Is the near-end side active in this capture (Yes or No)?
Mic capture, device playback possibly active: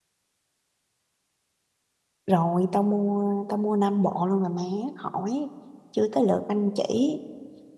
Yes